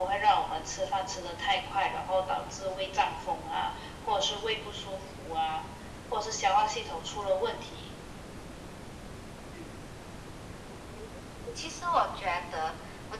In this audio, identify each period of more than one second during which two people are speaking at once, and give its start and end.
none

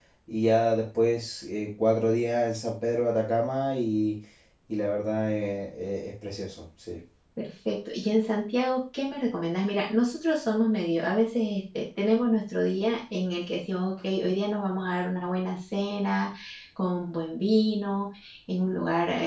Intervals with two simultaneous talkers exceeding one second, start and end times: none

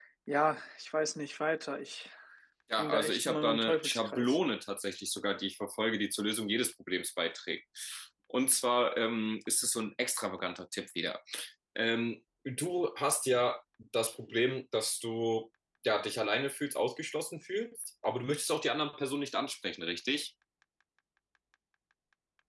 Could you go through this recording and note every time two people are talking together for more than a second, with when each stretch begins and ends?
2.8-4.4

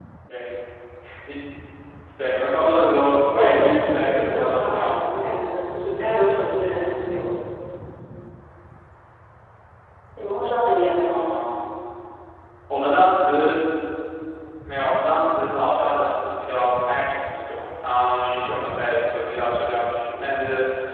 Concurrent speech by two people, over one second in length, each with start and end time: 3.2-5.1

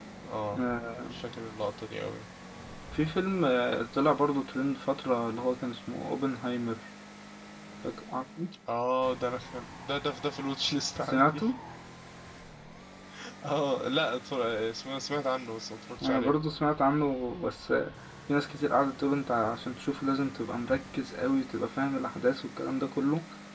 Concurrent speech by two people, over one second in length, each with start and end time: none

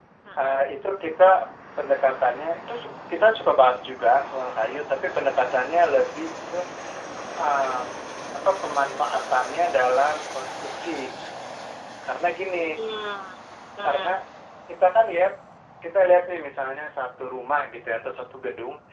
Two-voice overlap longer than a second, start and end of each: none

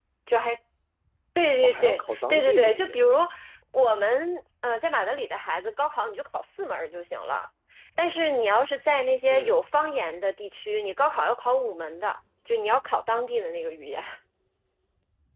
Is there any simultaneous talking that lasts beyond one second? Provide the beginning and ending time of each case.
1.6-3.0

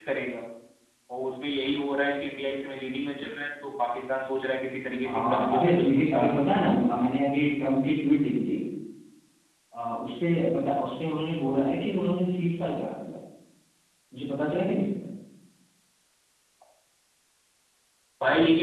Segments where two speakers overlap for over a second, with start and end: 5.1-6.4

